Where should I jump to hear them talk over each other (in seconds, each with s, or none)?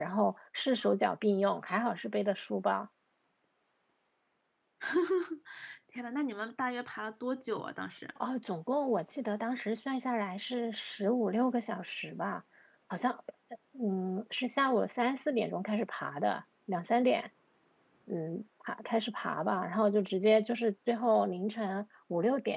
none